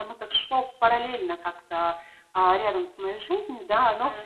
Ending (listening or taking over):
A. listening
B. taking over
B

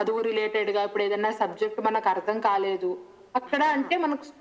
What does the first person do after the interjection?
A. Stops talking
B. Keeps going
B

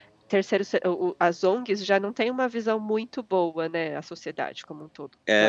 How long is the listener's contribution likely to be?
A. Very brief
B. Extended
B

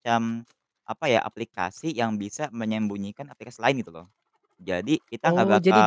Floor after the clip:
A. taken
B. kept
A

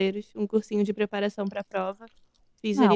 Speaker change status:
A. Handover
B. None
A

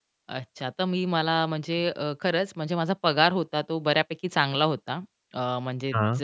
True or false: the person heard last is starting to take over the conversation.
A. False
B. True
A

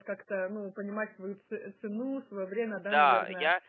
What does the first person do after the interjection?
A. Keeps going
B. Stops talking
B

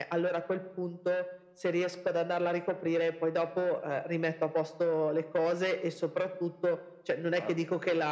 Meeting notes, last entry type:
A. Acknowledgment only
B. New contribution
A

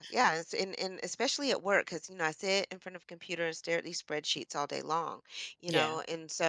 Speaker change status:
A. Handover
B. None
B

